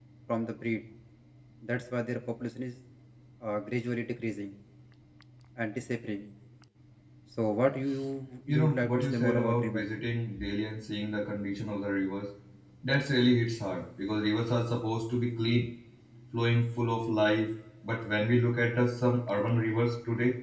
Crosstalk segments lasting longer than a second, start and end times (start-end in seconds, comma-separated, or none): 8.5-9.8